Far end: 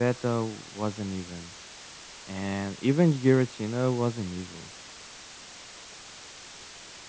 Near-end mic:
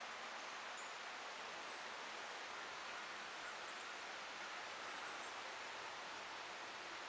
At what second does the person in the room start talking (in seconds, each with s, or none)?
none